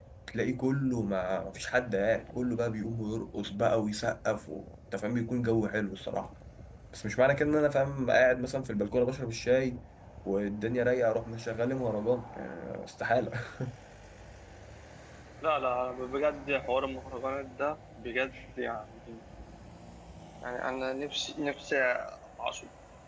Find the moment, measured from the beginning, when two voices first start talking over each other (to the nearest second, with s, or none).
none